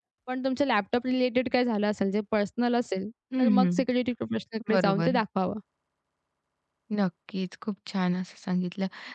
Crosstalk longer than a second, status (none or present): none